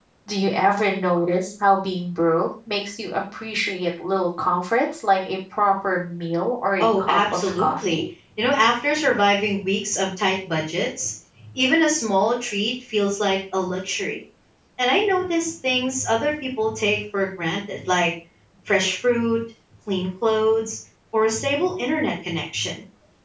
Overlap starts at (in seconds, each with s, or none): 6.8 s